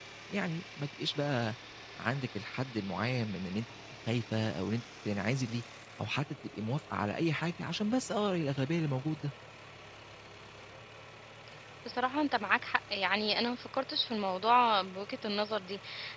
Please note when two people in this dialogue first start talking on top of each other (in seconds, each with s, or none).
none